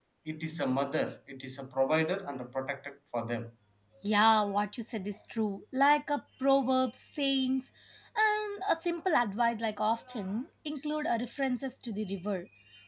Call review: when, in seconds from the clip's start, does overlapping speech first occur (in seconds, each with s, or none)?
none